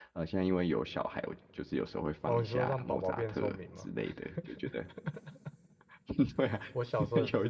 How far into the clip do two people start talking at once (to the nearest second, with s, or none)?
2 s